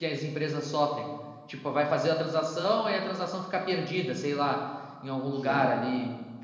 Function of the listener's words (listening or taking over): listening